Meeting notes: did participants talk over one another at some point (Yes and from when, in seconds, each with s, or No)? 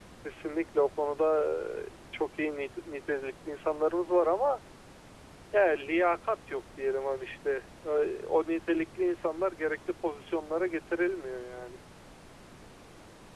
No